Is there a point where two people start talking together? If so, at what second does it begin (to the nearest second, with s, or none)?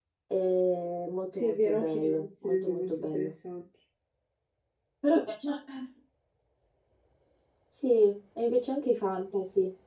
1 s